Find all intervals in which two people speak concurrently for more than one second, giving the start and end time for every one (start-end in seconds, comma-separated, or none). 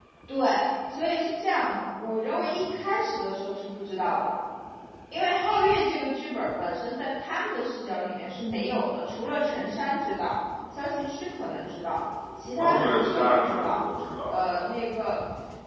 12.6-13.8